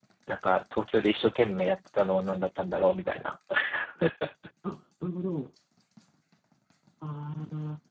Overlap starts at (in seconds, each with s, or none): none